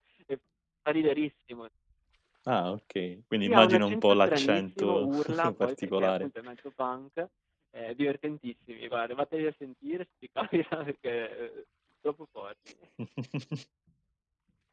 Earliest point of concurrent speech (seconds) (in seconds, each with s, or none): 3.4 s